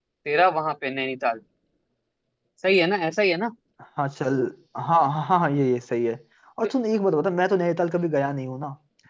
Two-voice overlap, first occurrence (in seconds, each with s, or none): none